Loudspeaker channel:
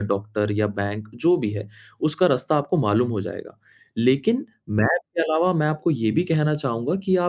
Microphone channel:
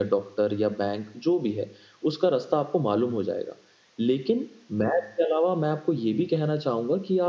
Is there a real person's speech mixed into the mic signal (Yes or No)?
No